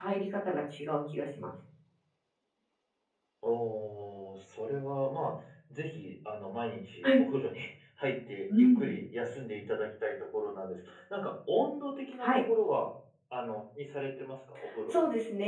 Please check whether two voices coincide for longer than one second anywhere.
No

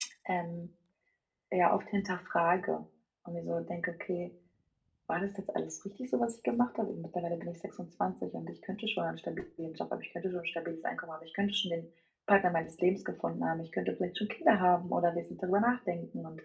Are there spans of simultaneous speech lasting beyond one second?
No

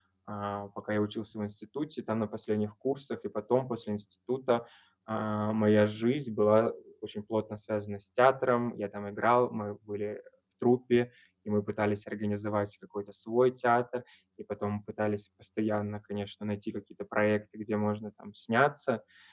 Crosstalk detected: No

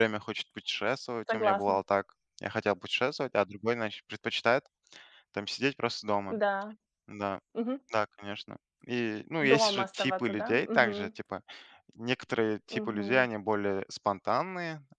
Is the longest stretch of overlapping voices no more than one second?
No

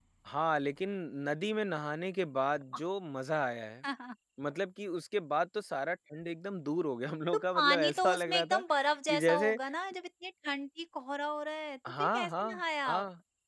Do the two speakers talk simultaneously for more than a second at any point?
Yes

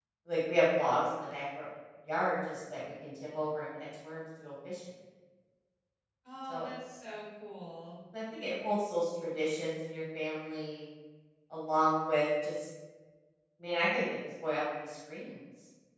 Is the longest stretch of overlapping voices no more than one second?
Yes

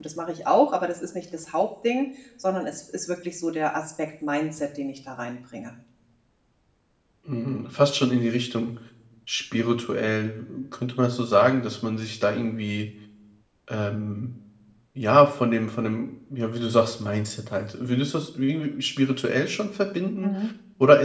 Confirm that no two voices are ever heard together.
Yes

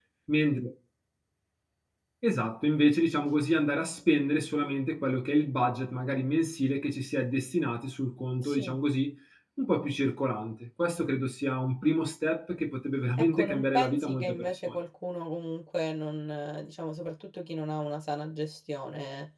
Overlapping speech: Yes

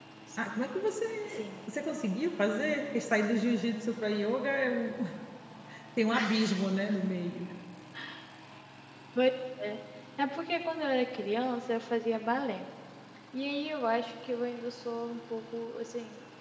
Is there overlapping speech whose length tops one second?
No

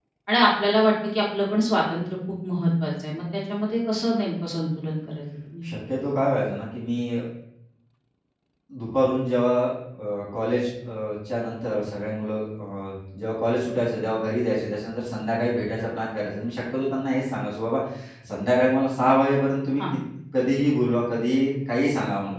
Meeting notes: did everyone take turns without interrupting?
Yes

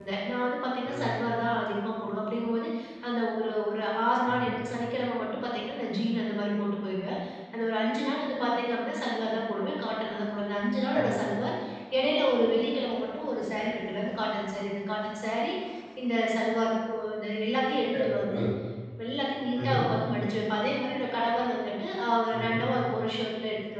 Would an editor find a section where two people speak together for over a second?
No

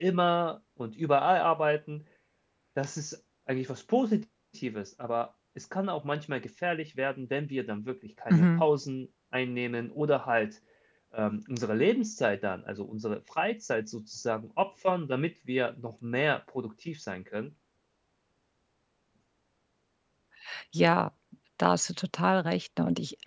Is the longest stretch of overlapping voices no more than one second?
Yes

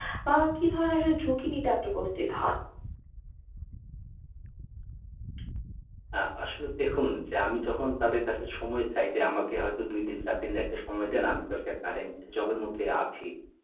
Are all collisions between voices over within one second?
Yes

